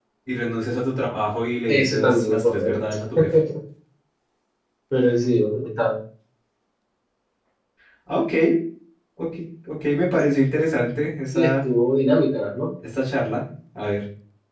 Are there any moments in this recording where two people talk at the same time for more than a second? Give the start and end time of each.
1.7-2.9

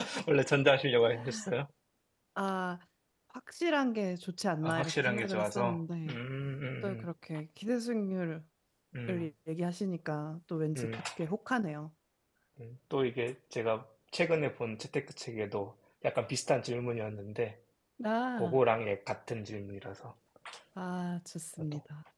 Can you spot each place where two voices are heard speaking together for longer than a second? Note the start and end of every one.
4.6-6.2

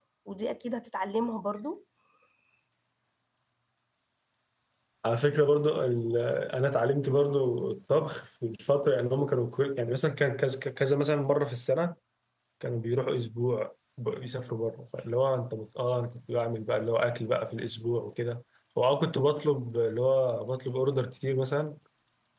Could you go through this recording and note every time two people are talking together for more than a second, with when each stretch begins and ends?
none

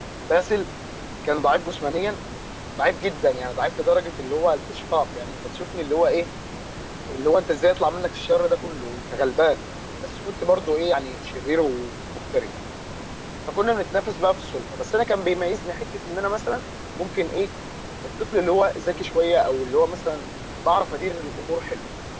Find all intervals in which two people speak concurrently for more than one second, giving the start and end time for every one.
none

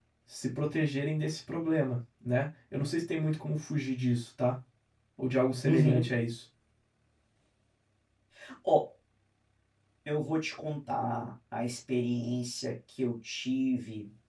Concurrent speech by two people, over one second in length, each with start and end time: none

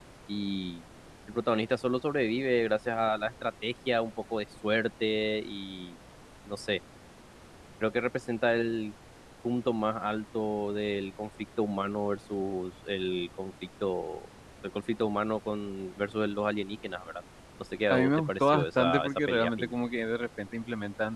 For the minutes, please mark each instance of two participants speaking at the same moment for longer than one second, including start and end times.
17.9-19.8

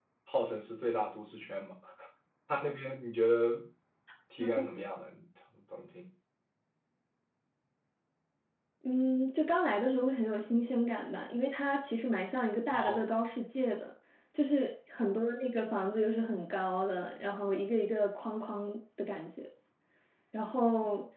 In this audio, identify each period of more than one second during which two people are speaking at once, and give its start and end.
none

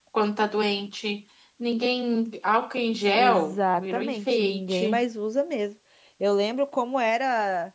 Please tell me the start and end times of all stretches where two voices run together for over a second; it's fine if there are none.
3.2-5.0

